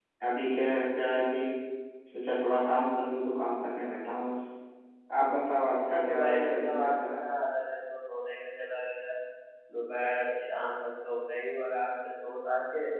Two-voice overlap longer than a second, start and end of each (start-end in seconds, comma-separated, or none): 5.5-7.2